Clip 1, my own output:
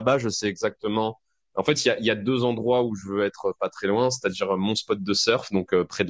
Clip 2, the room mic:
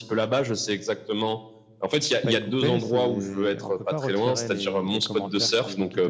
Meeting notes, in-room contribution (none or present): present